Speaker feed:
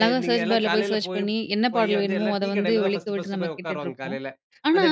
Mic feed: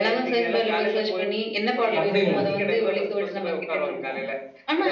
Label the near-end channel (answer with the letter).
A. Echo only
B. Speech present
B